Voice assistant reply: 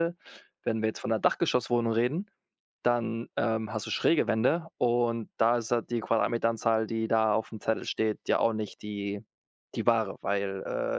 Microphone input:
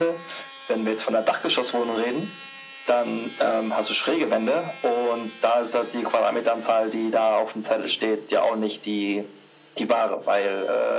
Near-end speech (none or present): none